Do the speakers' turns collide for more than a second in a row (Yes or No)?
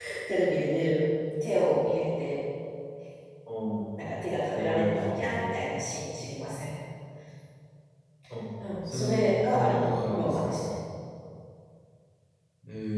Yes